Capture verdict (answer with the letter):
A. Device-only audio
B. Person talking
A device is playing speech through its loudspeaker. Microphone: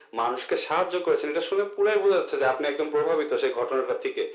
A